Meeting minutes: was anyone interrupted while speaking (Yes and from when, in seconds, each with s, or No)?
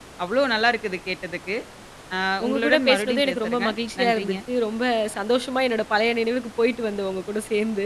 Yes, from 2.4 s